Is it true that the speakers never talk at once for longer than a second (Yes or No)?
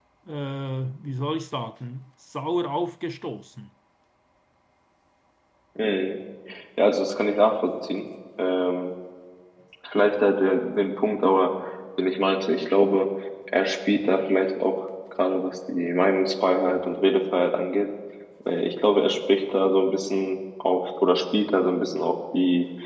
Yes